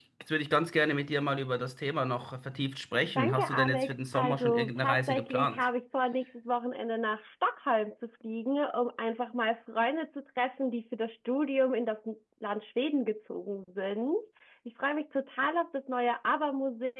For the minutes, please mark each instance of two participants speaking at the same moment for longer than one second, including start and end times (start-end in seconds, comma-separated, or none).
3.2-5.6